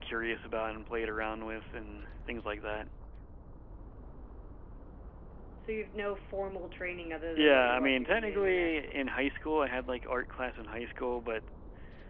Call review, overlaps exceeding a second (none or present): present